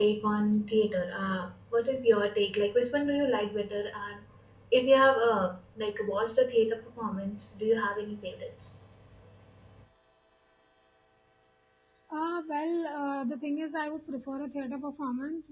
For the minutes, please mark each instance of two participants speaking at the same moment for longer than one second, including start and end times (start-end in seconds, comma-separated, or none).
none